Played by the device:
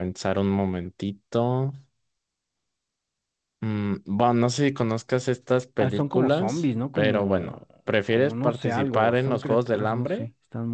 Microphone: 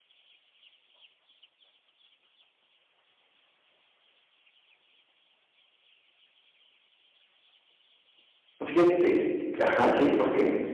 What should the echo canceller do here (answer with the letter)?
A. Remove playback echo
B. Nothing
B